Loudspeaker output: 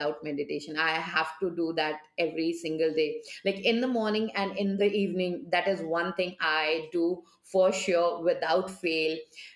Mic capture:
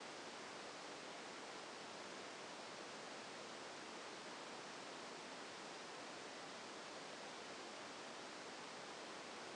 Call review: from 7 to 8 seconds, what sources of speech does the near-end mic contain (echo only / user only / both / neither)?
neither